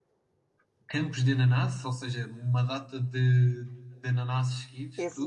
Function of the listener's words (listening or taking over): taking over